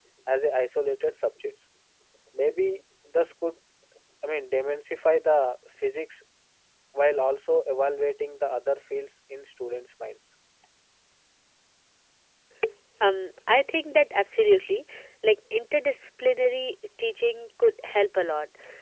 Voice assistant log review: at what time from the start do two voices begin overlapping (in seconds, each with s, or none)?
none